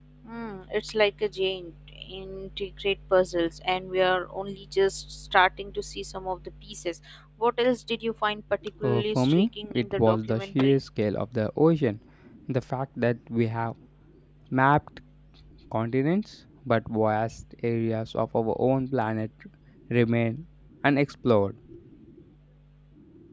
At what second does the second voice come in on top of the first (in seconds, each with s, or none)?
8.8 s